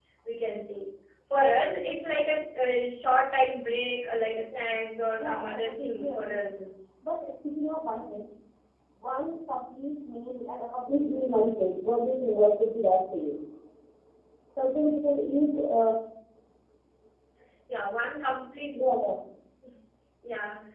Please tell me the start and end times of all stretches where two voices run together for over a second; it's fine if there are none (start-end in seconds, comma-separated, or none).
5.2-6.6